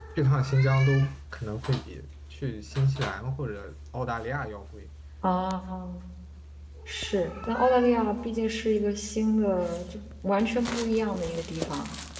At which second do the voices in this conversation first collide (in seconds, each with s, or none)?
none